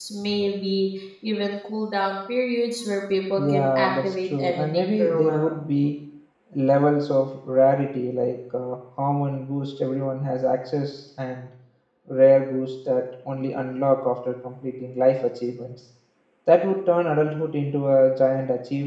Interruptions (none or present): present